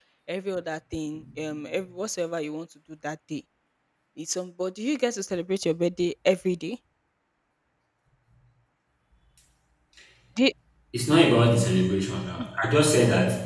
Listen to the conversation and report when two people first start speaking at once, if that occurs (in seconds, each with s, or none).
none